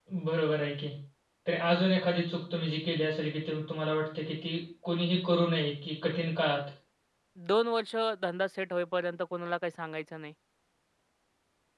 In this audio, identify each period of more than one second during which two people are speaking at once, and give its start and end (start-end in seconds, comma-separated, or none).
none